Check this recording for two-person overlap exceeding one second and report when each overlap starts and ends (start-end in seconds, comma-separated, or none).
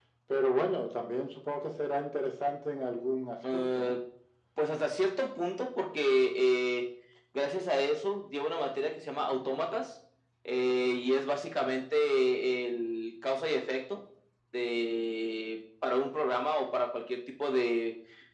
none